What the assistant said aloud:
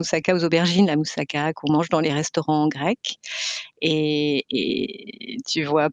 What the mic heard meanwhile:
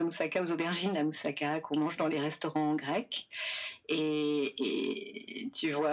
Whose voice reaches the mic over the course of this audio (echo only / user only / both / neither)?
echo only